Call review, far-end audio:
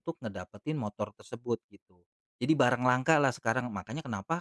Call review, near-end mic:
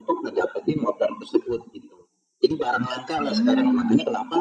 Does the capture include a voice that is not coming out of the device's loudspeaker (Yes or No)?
Yes